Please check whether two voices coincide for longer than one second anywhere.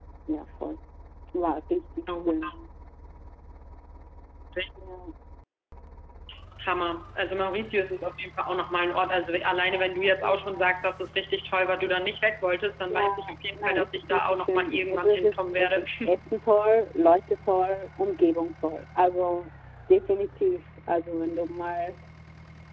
Yes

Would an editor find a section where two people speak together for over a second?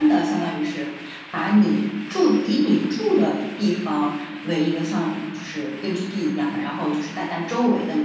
No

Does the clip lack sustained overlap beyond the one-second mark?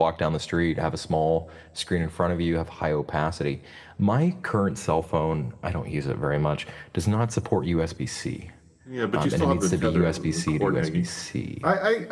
No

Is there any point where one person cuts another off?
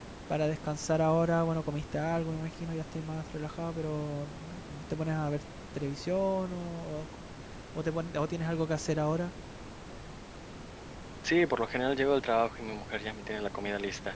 No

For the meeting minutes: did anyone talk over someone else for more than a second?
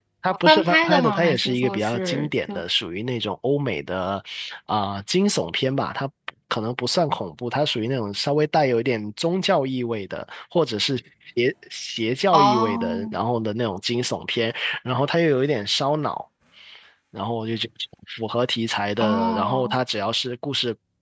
Yes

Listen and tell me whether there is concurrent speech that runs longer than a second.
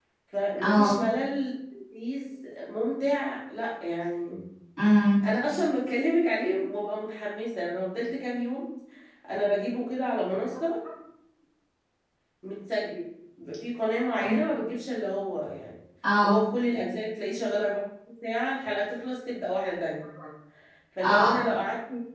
No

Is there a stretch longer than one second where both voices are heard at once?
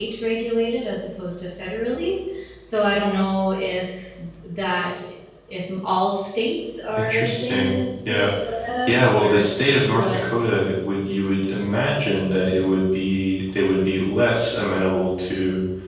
Yes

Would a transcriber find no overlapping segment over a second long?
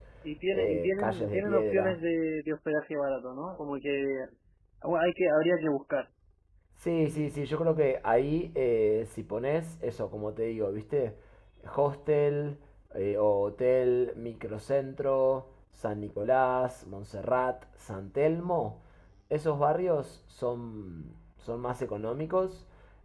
No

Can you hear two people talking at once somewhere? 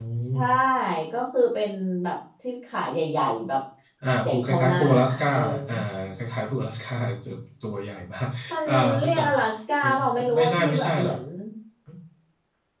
Yes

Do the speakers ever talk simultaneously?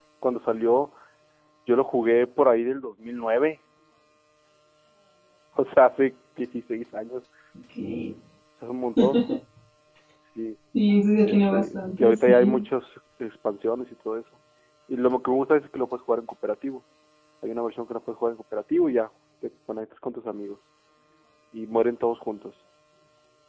Yes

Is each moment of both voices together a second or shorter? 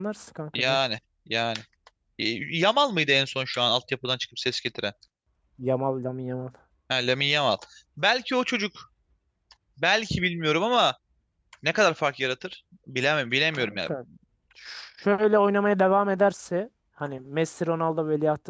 Yes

